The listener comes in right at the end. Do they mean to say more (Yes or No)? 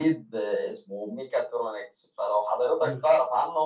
No